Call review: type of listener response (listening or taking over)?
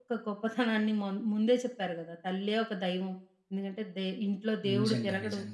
listening